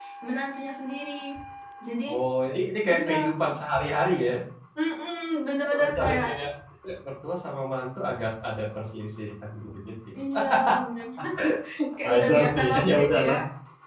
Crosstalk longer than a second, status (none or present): present